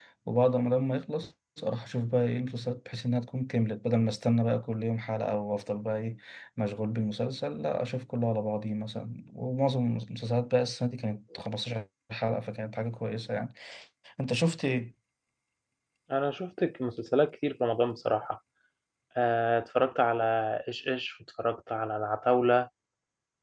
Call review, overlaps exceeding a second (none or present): none